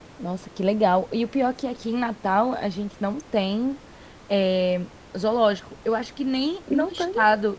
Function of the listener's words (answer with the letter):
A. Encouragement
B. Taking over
A